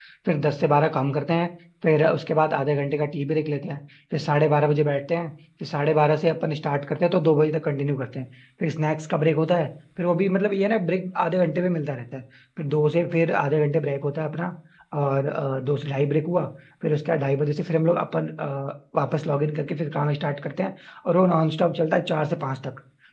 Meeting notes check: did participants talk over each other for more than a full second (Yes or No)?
No